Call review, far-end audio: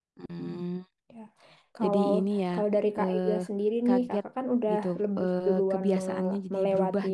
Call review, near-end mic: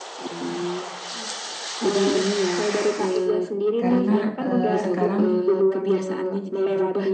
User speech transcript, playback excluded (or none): karena eh, sekarang